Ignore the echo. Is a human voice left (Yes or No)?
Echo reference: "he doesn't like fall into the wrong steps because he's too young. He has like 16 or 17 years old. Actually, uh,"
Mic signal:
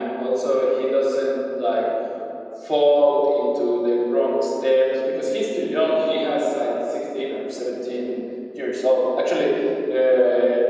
No